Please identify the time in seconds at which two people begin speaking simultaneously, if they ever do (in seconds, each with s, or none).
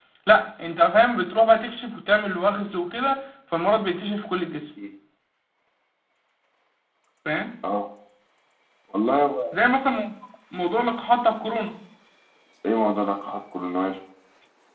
none